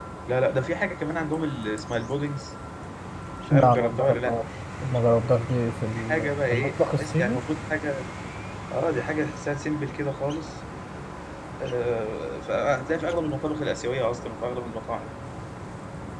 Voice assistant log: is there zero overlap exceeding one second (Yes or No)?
No